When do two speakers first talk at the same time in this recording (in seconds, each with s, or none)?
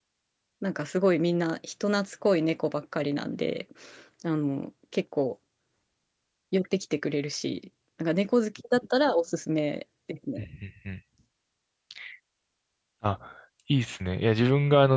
none